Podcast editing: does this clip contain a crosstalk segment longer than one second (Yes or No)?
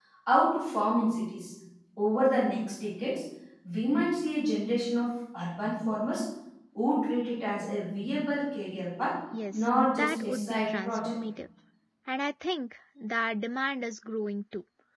Yes